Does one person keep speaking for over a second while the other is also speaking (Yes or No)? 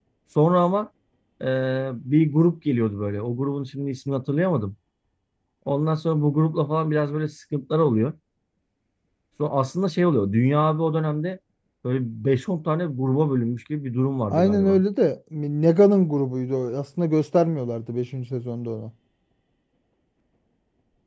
No